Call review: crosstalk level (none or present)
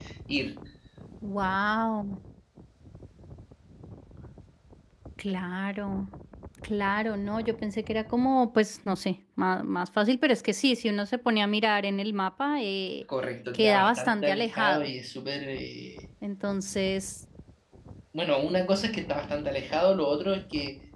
present